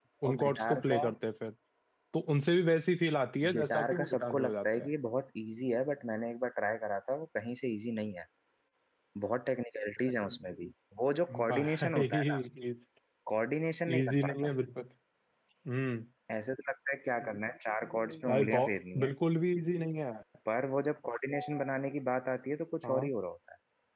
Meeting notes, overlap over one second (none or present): present